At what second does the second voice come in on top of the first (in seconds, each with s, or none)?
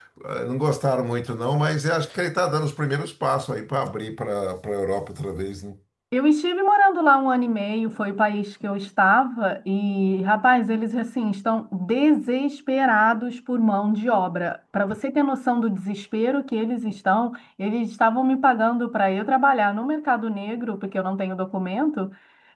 none